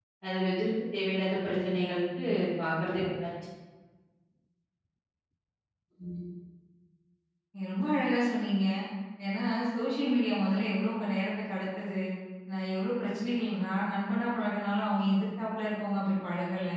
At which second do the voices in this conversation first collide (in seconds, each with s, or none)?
none